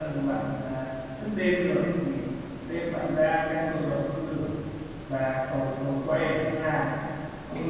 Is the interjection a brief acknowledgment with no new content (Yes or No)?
Yes